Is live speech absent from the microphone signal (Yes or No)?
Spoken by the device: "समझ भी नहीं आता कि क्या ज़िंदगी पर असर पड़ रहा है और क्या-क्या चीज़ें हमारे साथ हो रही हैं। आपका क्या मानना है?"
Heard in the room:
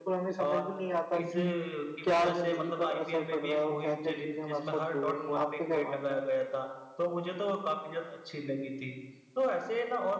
No